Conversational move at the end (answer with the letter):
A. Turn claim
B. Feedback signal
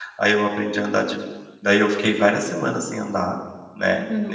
A